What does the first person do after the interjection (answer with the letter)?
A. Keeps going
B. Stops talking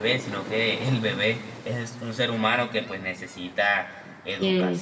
A